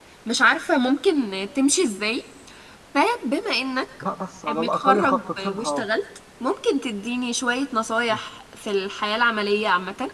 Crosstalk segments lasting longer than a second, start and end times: 4.5-5.8

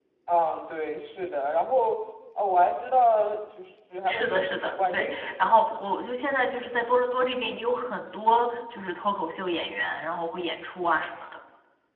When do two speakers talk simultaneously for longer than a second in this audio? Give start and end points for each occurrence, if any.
4.1-5.8

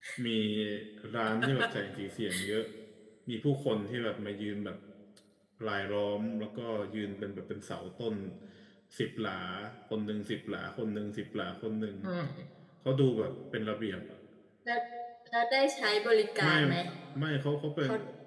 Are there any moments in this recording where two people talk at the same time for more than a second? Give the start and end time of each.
none

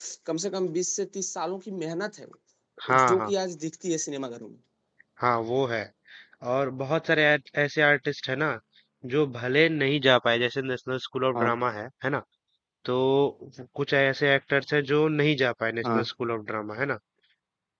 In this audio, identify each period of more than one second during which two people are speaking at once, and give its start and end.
none

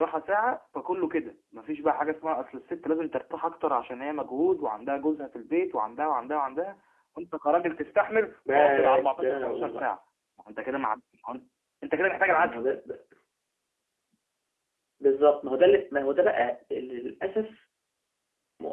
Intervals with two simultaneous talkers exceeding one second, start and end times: 8.5-9.9

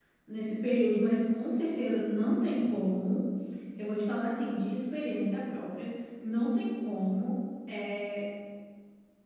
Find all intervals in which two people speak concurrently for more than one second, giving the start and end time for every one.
none

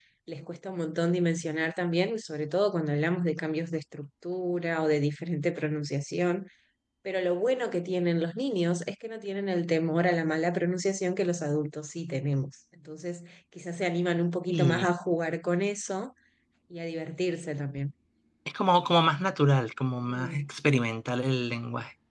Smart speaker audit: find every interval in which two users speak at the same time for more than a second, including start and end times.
none

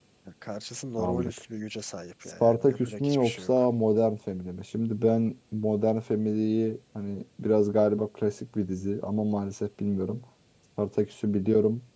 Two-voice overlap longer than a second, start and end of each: 2.4-3.6

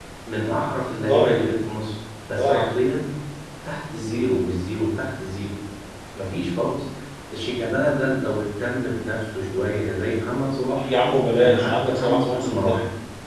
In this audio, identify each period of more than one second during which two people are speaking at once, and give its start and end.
11.4-12.8

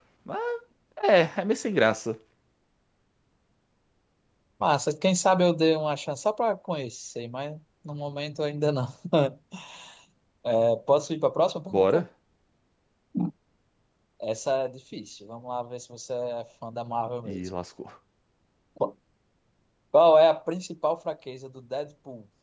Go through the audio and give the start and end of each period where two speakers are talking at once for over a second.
none

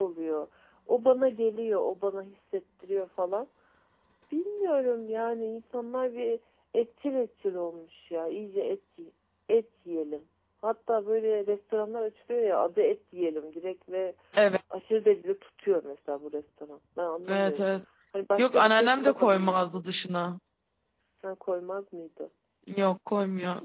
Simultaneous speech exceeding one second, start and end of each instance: 18.4-19.8

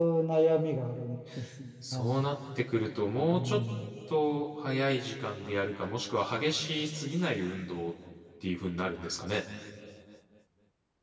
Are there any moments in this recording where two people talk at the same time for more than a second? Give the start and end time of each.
none

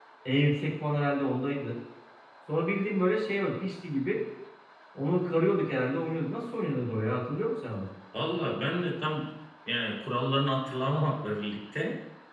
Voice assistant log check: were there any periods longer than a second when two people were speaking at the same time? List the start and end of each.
none

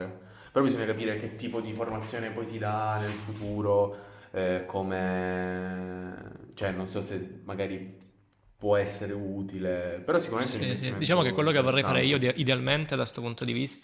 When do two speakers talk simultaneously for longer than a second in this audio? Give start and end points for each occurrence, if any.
10.4-12.3

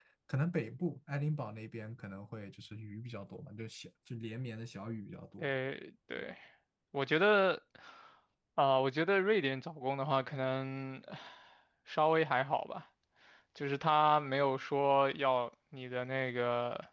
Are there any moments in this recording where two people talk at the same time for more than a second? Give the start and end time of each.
none

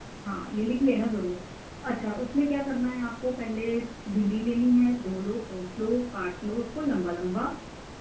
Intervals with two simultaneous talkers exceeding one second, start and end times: none

